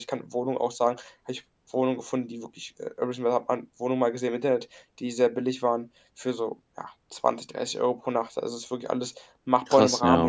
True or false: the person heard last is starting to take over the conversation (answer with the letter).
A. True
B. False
B